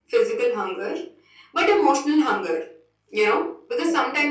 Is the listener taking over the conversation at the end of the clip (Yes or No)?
No